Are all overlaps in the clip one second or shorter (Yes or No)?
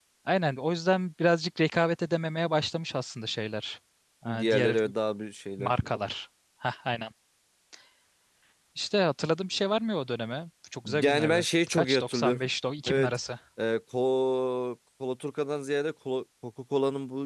No